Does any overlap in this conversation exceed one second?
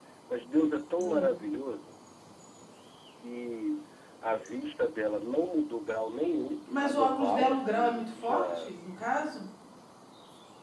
Yes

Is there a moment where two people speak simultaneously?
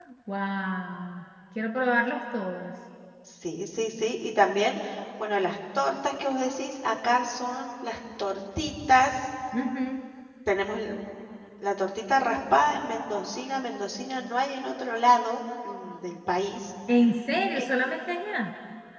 No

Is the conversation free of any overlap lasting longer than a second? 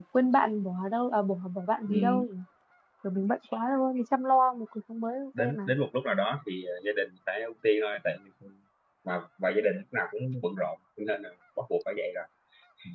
Yes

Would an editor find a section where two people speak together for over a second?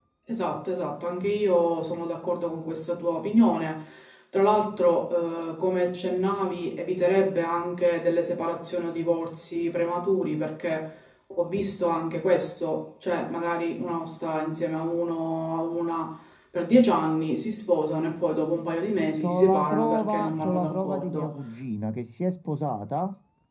Yes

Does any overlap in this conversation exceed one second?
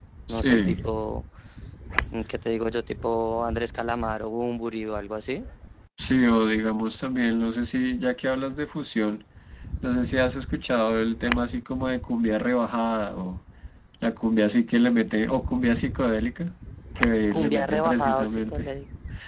Yes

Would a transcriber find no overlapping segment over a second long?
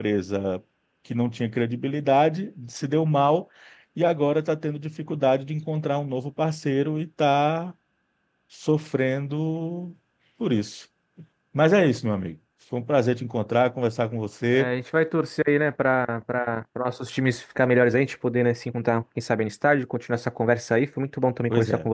Yes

